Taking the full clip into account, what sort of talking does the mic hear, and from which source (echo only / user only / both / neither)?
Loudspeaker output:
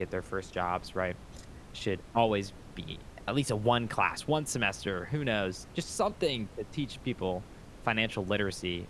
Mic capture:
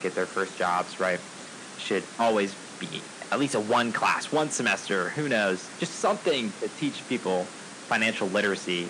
echo only